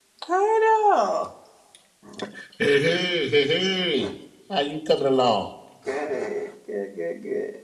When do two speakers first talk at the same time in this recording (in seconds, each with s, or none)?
none